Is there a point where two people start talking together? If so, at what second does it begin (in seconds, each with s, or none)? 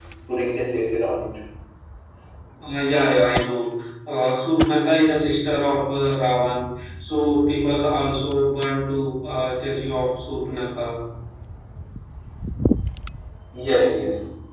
none